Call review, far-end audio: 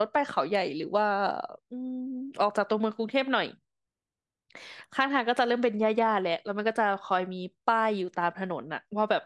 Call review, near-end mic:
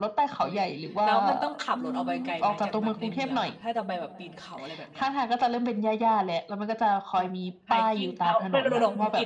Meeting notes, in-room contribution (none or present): present